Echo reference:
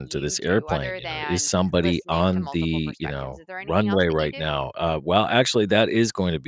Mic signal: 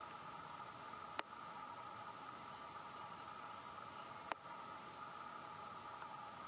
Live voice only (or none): none